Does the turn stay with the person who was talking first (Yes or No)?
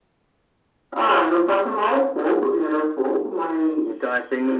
No